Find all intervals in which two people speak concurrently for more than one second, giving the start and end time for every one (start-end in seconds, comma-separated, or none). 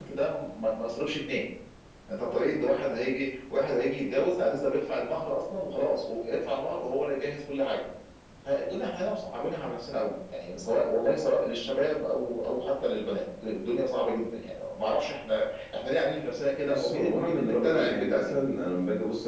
16.7-18.3